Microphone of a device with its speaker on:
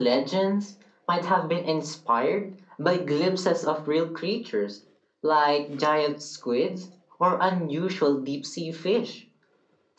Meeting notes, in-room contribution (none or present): none